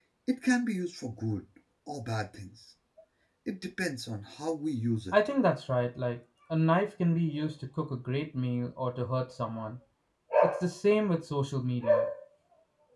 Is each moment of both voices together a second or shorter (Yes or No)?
Yes